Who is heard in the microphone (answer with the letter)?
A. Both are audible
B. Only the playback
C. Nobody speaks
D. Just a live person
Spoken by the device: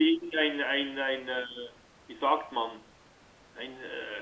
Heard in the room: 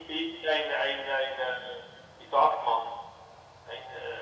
B